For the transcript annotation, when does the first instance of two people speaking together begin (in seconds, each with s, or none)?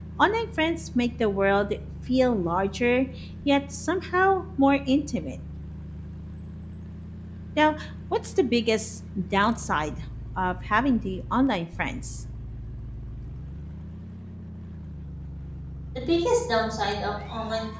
none